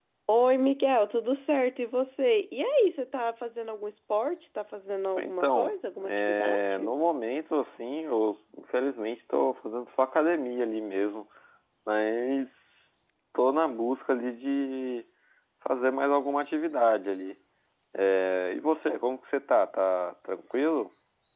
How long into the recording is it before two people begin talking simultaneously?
5.2 s

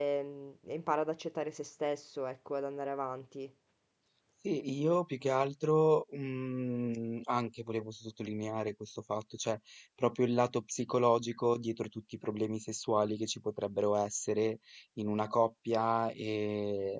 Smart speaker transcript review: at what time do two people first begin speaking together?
none

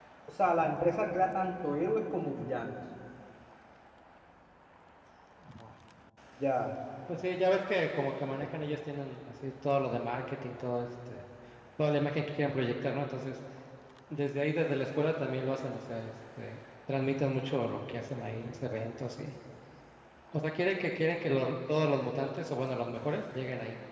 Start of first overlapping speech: none

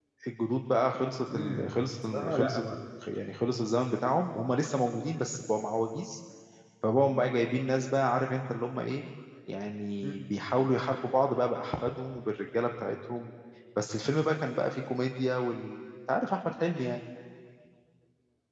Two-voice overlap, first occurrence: 1.3 s

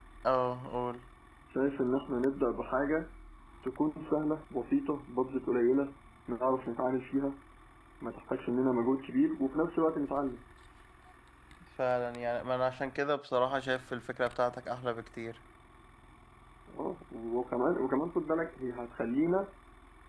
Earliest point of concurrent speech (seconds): none

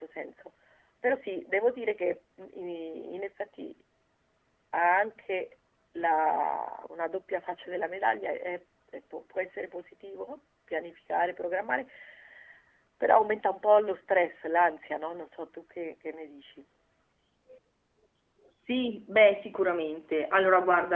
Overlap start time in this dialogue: none

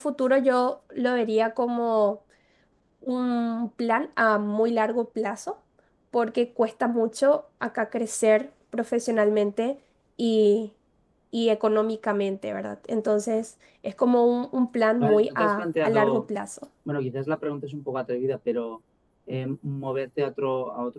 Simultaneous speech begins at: 15.0 s

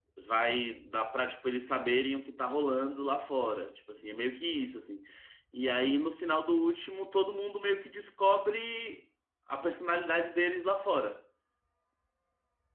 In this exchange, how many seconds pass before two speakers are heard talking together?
none

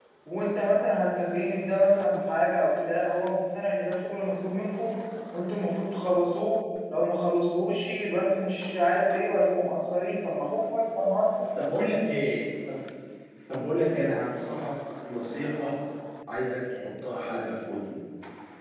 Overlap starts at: none

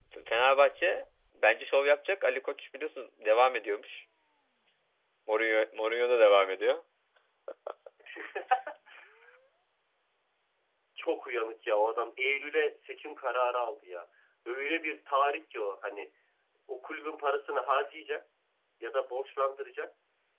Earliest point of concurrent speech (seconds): none

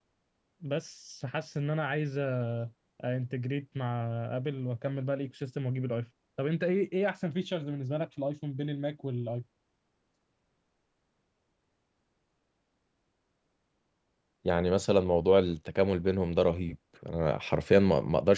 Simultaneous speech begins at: none

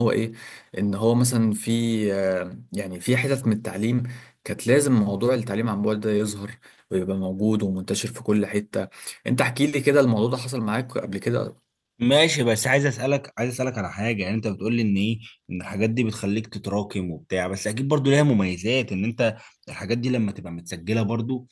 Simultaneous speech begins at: none

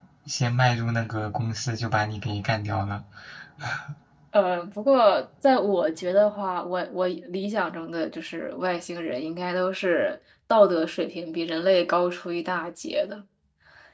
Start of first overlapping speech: none

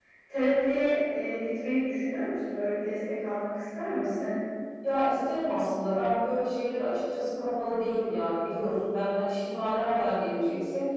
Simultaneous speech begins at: none

